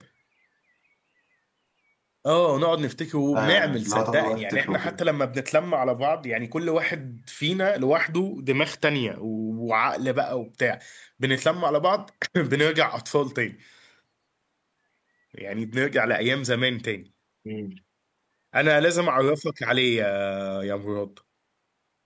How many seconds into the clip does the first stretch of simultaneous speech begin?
3.3 s

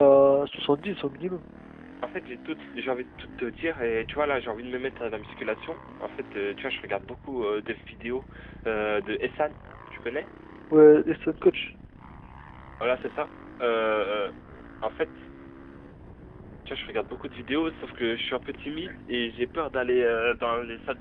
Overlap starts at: none

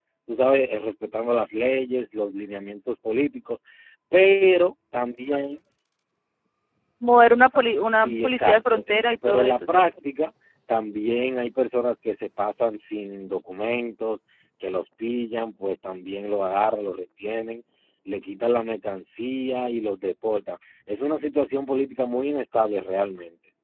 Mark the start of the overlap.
7.9 s

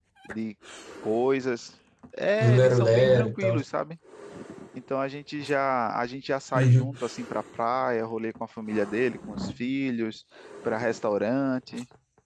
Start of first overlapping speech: 2.4 s

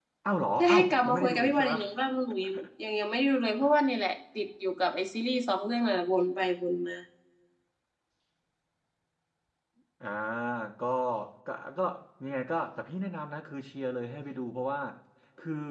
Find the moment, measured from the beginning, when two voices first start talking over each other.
0.6 s

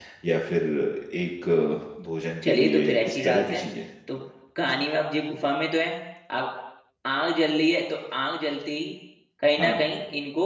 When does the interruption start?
2.4 s

